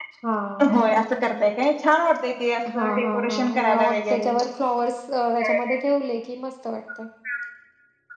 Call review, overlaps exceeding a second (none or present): present